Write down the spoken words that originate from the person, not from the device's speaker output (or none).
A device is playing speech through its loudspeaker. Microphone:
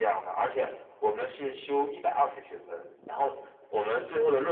none